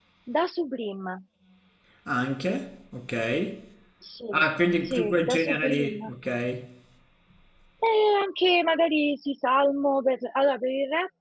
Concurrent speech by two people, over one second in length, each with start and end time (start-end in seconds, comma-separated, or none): 4.8-6.1